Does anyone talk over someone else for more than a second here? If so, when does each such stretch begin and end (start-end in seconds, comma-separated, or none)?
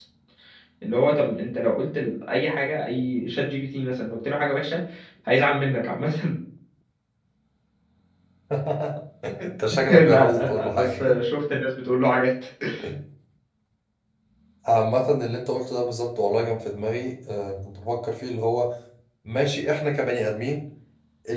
9.9-11.2